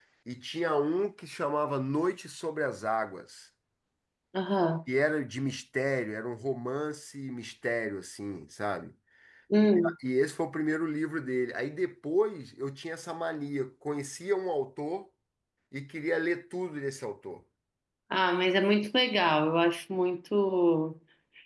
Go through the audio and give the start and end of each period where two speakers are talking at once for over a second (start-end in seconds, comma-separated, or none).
none